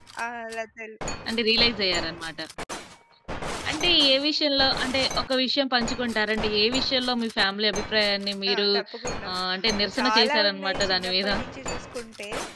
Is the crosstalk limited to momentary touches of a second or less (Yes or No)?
No